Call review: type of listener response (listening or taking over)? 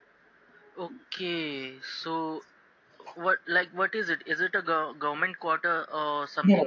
taking over